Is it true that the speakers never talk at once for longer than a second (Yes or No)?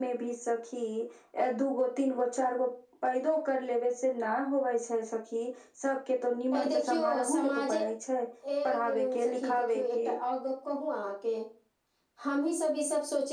No